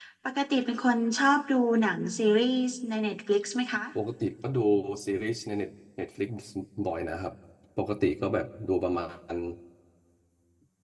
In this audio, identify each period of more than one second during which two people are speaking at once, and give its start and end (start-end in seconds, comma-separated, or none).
none